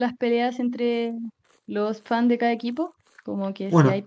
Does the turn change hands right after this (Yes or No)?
No